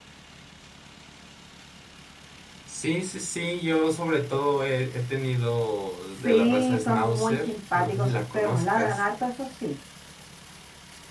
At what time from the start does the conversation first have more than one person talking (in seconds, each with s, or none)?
6.2 s